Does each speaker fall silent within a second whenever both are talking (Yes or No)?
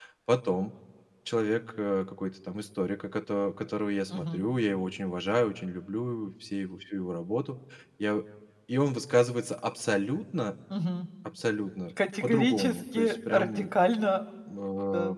No